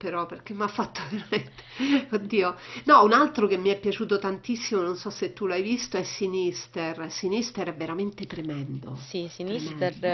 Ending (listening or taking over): taking over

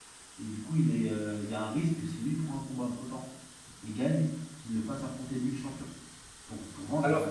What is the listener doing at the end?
taking over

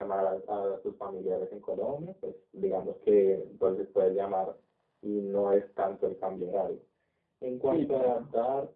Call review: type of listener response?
listening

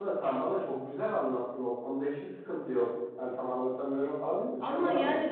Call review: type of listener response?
taking over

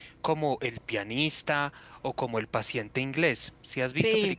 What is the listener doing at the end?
taking over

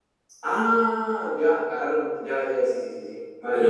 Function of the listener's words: taking over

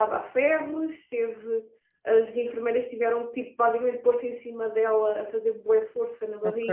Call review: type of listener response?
listening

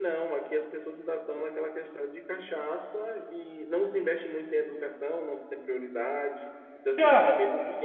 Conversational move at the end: listening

